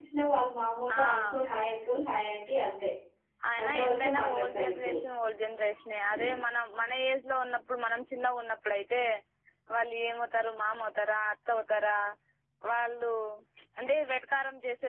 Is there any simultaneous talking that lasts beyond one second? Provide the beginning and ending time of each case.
3.6-5.0

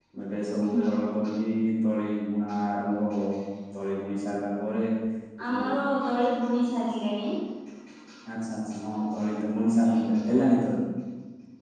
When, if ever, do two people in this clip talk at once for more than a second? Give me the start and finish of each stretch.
none

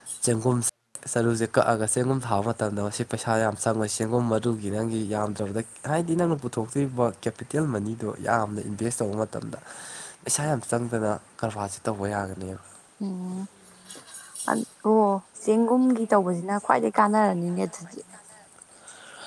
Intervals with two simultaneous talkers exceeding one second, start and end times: none

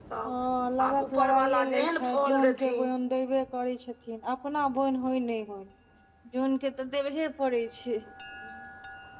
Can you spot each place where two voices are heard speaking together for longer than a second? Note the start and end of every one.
0.9-2.9

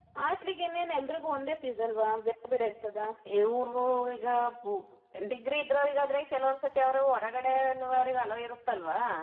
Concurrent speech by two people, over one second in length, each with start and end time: none

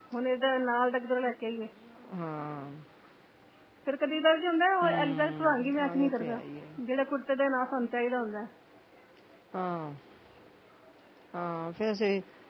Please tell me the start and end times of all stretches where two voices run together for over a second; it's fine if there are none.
4.8-6.4

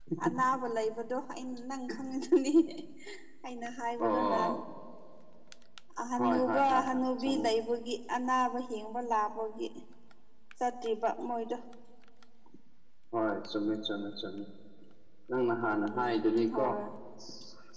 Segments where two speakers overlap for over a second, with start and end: 6.2-7.5

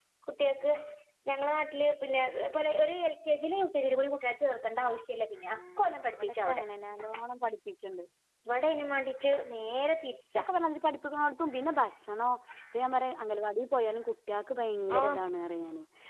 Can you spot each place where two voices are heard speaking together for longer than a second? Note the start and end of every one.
none

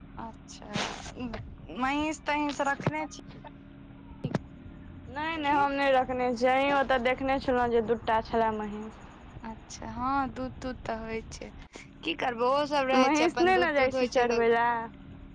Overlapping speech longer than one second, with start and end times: 12.9-14.4

